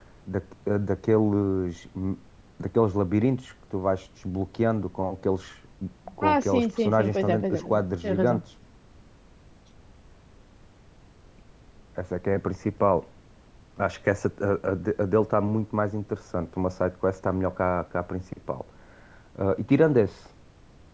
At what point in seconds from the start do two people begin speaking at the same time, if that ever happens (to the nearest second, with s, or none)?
6 s